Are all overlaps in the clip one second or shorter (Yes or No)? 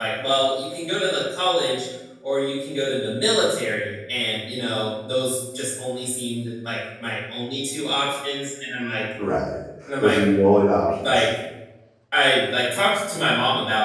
Yes